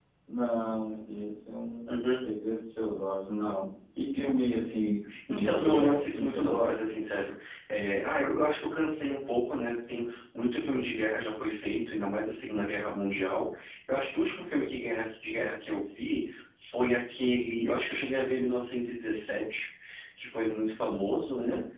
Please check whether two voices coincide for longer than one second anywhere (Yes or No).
Yes